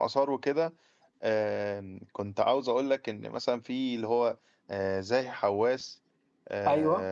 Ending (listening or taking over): listening